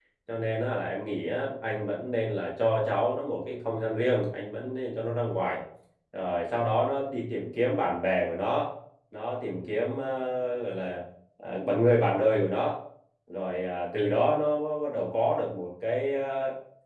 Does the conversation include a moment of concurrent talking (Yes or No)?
No